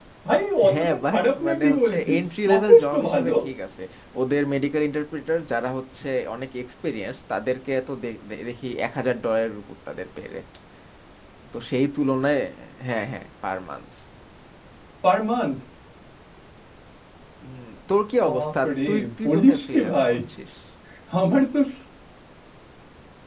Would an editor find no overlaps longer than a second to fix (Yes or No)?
No